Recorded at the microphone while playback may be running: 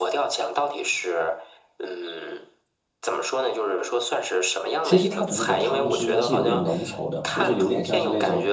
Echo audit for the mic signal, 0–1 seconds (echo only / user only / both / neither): echo only